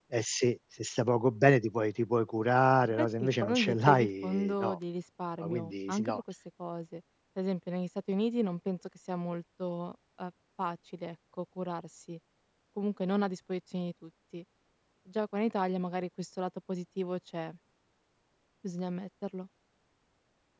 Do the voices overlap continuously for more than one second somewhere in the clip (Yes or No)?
Yes